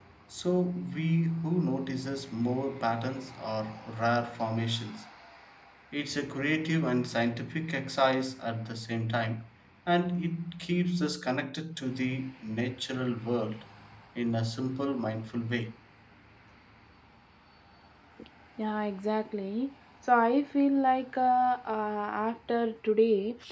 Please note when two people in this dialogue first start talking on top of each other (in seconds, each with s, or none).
none